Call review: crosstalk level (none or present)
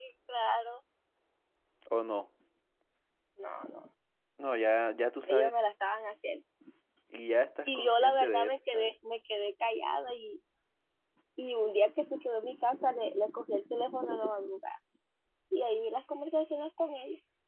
present